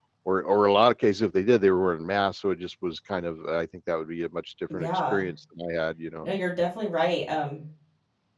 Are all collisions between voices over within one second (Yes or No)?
Yes